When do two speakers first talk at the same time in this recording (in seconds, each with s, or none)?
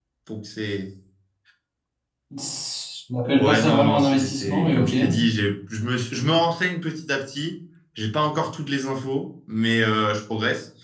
3.4 s